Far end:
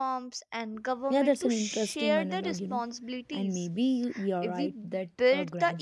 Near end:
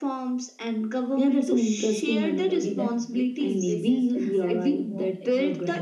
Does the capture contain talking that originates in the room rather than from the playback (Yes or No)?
Yes